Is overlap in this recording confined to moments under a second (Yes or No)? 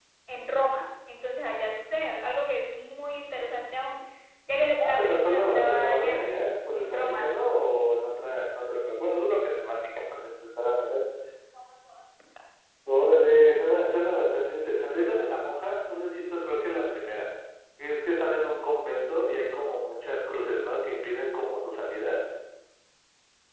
No